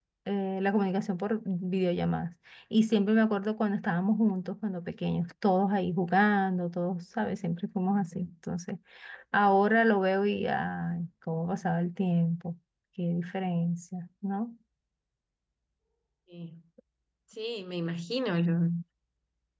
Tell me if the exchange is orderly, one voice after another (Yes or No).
Yes